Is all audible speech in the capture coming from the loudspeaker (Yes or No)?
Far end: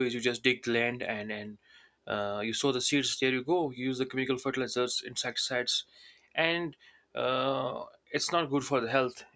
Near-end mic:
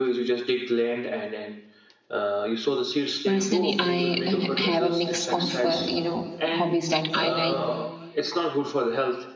No